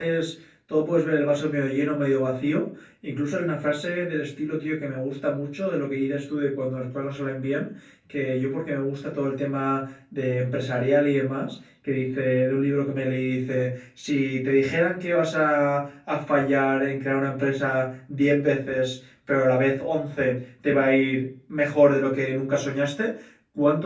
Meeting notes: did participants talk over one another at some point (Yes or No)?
No